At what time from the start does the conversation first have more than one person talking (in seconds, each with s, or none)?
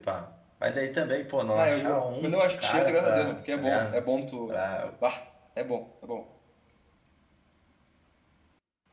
1.5 s